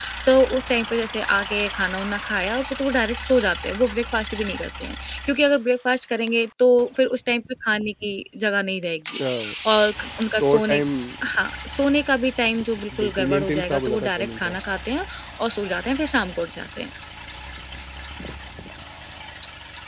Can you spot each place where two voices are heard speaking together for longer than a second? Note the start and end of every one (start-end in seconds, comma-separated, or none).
13.0-14.6